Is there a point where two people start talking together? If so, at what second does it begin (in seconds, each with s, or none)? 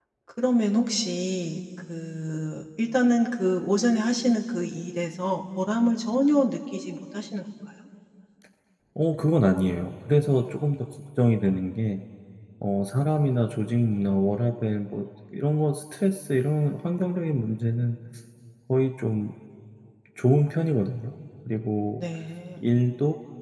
none